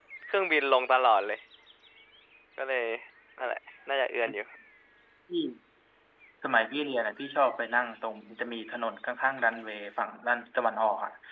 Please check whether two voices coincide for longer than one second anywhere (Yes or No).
No